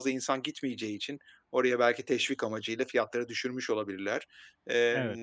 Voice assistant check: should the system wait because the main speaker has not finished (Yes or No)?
Yes